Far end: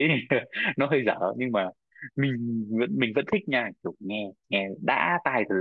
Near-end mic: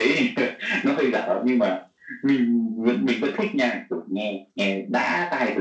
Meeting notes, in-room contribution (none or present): none